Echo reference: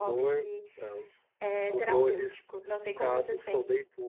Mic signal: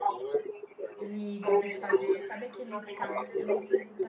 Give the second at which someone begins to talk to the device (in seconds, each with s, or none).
0.9 s